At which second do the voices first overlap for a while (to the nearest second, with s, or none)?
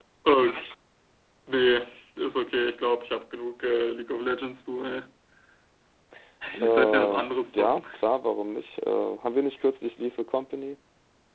7 s